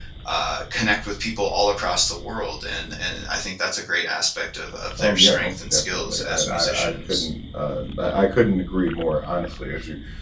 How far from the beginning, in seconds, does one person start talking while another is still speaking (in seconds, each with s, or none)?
5.0 s